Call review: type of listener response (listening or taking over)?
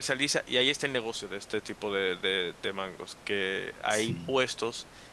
listening